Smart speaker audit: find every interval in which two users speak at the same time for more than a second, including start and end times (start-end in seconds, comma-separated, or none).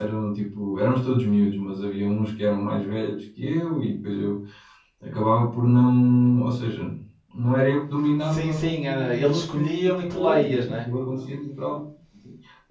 8.2-10.9